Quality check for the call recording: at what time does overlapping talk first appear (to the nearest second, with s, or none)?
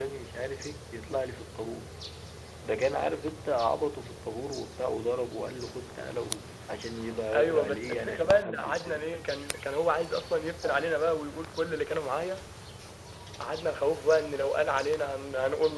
7 s